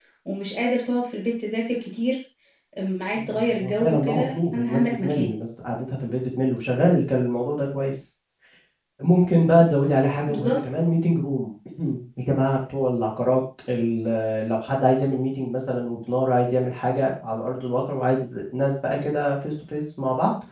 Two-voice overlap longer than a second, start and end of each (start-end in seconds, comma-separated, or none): 3.2-5.3